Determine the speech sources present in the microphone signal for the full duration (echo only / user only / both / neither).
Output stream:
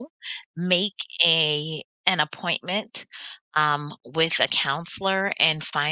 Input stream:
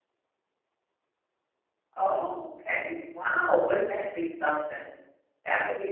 user only